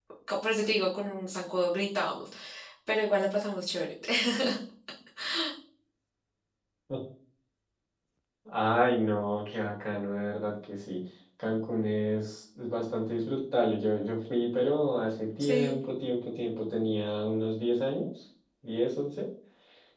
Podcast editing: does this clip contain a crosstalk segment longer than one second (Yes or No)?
No